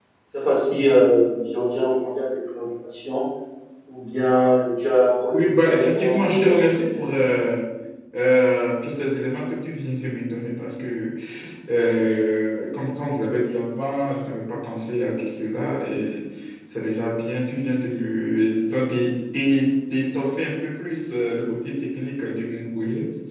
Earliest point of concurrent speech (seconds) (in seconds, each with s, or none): 5.3 s